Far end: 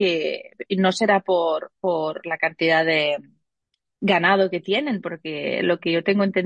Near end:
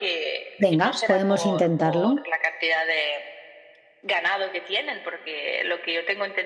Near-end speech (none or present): present